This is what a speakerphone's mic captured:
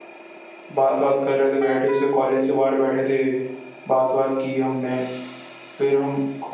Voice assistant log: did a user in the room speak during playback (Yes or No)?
Yes